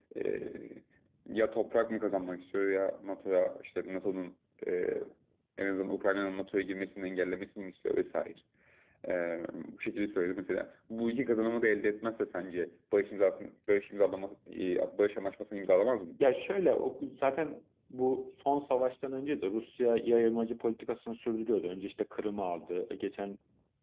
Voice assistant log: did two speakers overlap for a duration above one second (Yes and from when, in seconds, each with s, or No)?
No